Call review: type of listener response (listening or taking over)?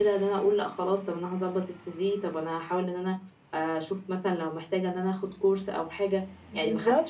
listening